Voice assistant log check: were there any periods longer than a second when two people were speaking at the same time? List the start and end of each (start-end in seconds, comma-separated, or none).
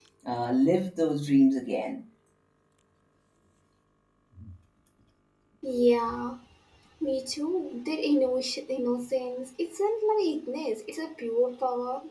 none